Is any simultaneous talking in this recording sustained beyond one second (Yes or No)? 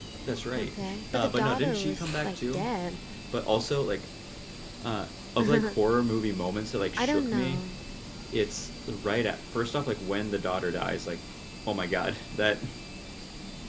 Yes